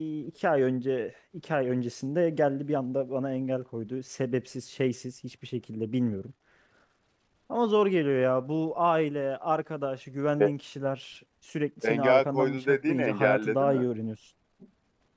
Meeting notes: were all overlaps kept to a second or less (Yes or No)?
No